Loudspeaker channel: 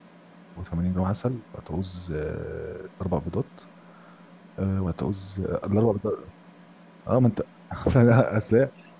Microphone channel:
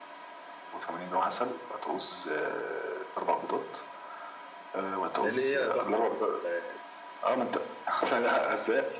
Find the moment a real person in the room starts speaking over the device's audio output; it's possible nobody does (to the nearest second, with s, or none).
5 s